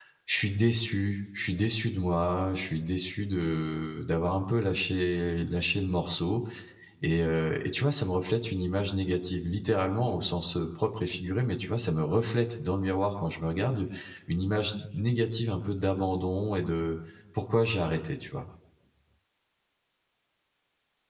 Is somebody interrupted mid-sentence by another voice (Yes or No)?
No